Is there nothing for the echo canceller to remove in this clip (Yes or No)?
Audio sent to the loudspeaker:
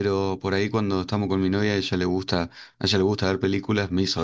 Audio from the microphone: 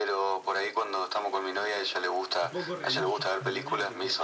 No